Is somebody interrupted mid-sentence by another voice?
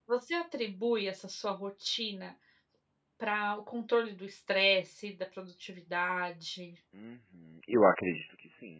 No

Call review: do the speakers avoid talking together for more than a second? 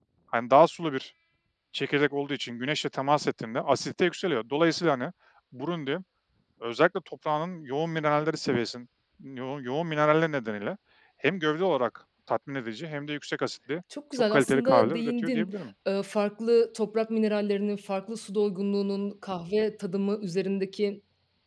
No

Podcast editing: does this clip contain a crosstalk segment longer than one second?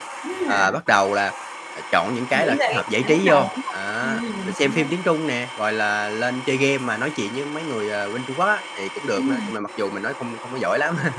Yes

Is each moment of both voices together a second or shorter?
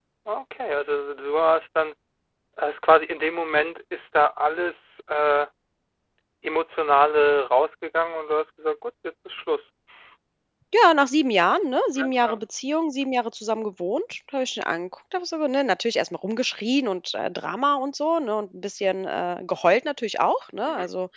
Yes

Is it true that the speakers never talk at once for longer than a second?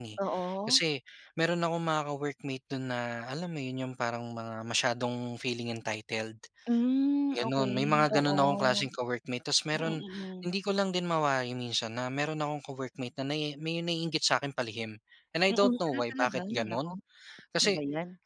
No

